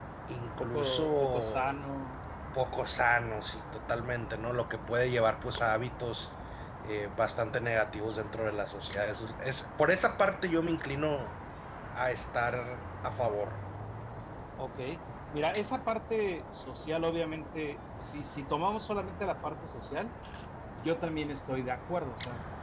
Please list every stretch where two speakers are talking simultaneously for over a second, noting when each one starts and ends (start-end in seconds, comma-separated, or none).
0.6-1.8